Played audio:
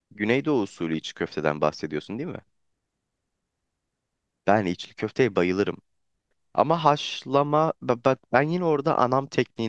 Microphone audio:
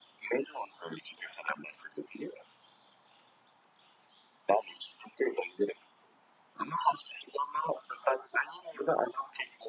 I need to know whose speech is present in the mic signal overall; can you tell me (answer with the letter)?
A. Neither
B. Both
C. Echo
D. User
C